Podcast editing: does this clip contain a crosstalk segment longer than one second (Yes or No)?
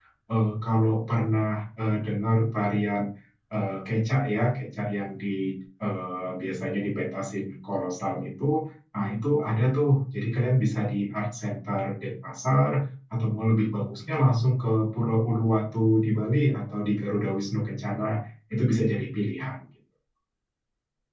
No